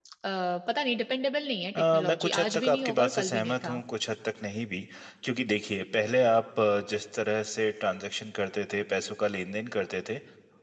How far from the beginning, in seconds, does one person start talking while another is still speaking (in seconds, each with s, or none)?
1.8 s